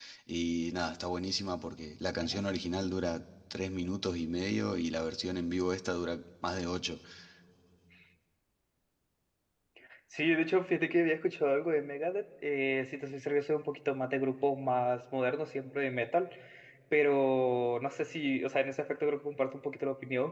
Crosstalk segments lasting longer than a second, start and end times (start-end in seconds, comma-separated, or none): none